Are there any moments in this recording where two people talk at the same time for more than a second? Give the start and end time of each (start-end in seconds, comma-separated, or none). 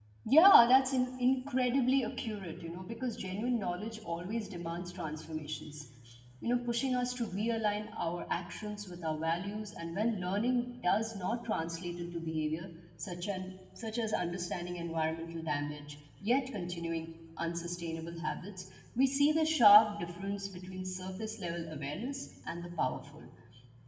none